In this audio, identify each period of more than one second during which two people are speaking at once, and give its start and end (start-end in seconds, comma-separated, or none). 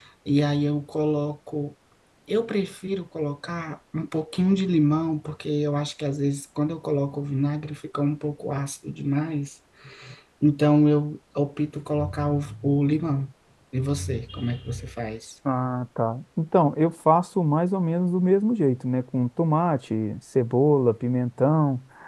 none